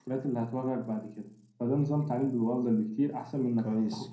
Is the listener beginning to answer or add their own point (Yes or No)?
No